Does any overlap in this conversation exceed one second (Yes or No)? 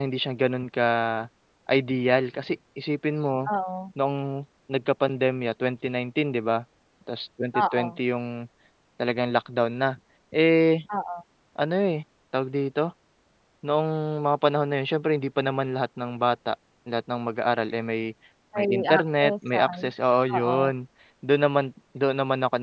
Yes